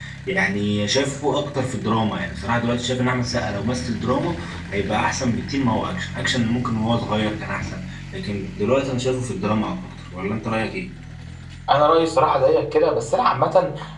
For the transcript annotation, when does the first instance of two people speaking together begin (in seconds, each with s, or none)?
none